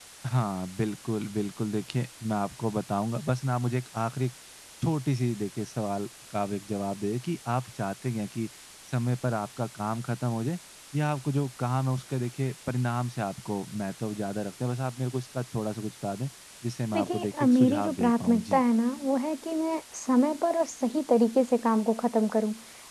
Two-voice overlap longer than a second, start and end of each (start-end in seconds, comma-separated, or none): 16.9-18.6